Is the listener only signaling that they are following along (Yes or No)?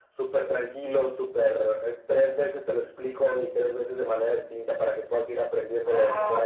No